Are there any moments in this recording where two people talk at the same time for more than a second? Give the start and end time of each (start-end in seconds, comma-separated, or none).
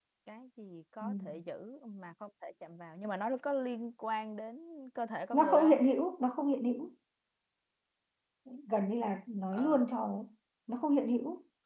none